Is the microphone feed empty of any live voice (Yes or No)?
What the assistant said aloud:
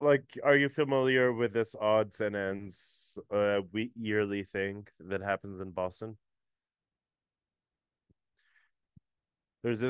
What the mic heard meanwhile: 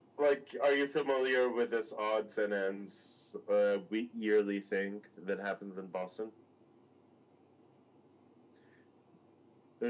Yes